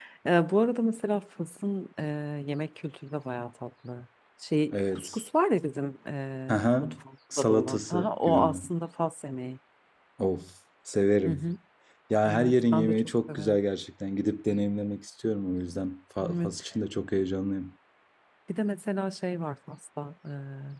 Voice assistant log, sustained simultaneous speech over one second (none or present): present